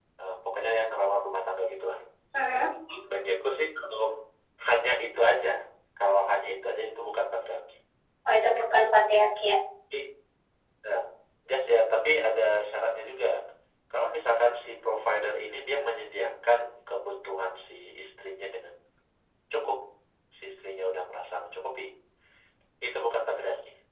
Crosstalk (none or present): none